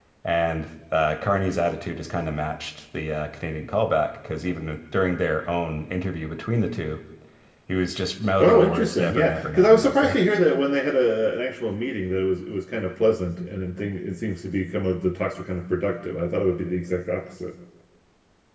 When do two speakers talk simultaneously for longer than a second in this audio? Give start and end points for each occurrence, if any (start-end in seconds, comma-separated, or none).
8.4-10.2